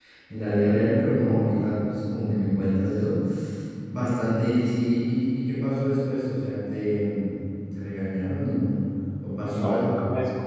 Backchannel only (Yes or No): No